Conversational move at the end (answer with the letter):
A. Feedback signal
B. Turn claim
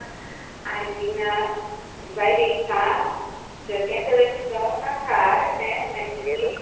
B